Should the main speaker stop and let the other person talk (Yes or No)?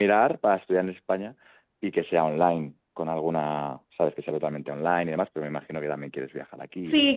Yes